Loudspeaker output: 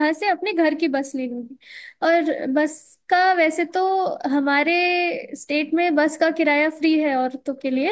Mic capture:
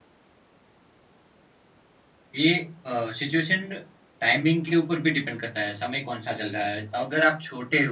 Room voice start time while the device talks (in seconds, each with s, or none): 2.3 s